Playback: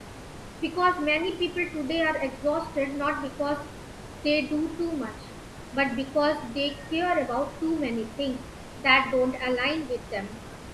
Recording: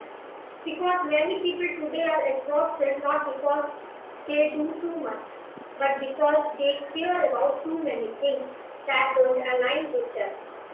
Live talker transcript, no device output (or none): none